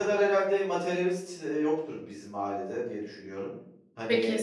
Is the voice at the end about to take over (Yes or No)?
Yes